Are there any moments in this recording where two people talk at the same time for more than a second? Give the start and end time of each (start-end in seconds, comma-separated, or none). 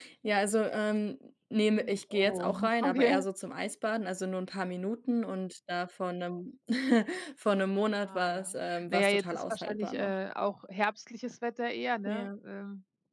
1.8-3.2, 8.1-10.1